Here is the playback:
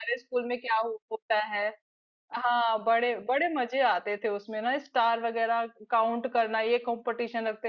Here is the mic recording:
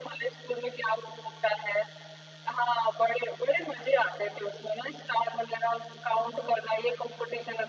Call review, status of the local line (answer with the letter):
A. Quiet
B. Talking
A